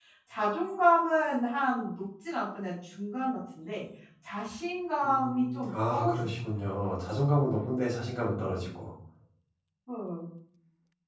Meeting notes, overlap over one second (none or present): present